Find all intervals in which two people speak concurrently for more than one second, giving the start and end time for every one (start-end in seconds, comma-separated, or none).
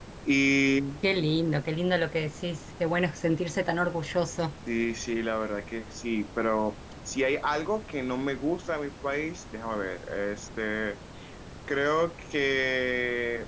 none